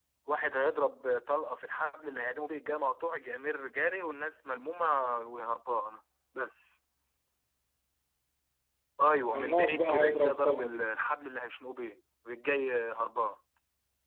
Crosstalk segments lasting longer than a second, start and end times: 9.3-10.8

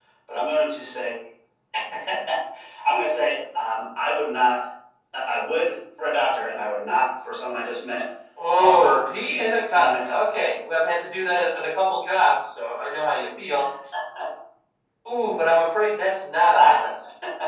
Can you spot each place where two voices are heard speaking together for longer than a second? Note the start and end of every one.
8.6-10.3

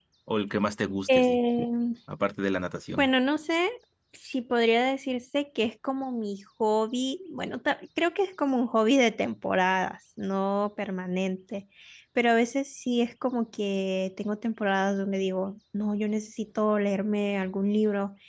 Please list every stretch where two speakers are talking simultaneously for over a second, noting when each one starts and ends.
none

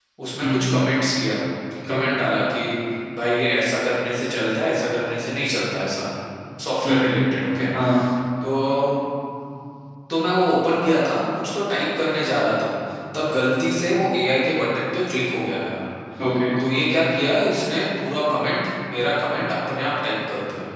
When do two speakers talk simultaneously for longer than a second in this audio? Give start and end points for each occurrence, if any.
none

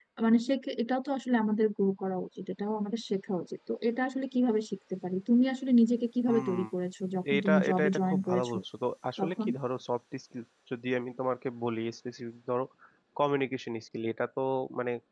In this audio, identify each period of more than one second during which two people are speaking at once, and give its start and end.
7.3-8.6

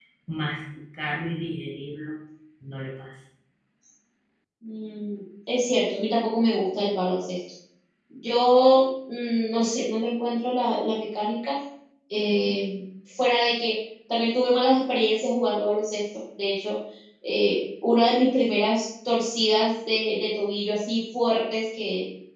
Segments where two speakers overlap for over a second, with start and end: none

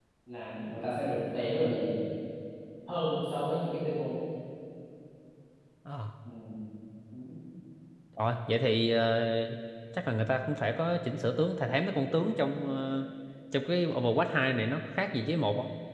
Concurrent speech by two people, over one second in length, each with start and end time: none

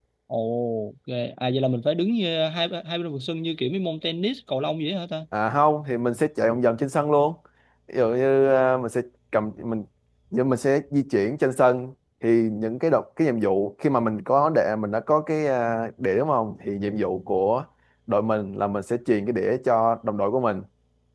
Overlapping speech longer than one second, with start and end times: none

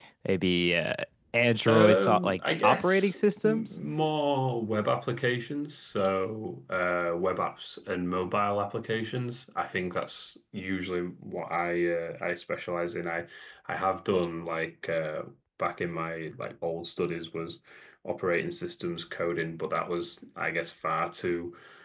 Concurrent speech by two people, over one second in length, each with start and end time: 1.7-3.6

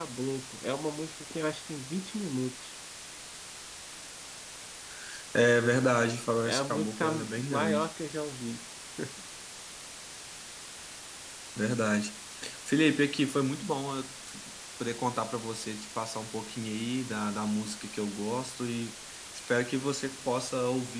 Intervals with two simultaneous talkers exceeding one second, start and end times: 6.4-7.9

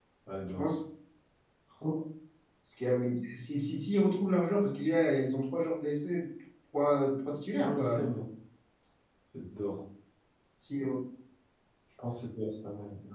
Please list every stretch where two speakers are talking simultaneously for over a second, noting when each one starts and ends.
none

